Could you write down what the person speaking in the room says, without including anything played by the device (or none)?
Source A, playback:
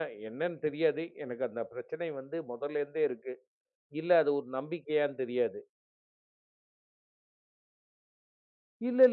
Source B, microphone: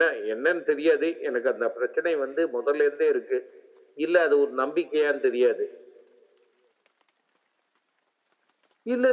none